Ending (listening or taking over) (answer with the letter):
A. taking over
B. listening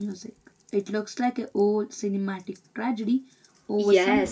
A